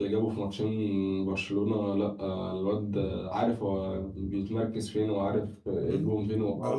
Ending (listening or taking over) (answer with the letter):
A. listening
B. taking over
B